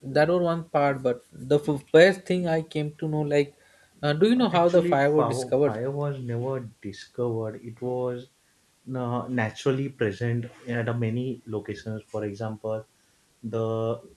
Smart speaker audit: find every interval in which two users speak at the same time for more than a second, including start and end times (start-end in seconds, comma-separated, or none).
4.5-5.8